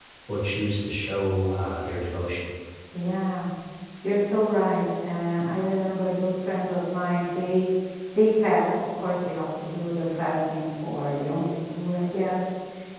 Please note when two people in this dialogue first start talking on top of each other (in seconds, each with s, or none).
none